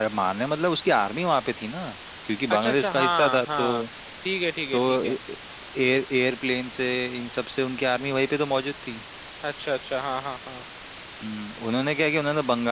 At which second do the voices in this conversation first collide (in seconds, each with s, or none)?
2.5 s